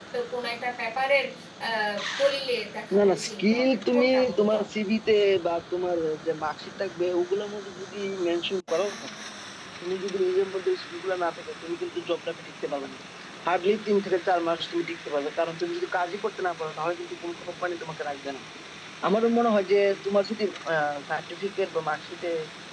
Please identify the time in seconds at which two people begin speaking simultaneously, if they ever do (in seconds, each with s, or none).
3.0 s